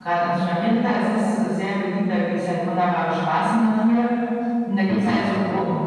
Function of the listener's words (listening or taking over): listening